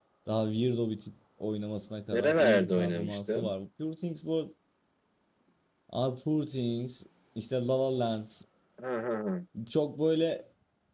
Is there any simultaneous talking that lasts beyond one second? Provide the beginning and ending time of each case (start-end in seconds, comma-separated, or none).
2.1-3.5